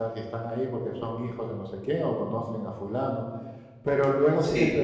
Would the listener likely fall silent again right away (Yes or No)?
Yes